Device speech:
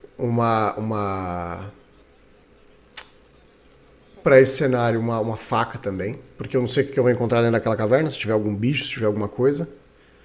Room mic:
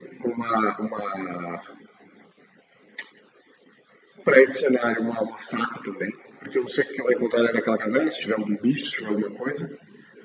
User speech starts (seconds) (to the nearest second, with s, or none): none